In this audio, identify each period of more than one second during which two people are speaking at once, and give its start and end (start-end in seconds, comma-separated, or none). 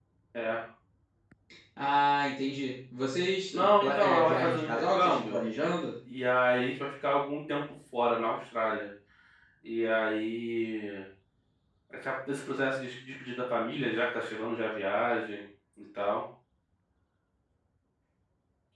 3.5-5.4